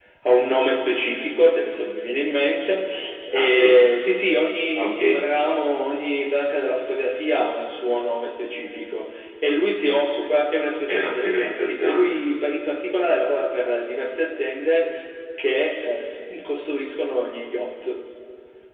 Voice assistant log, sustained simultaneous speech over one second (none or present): present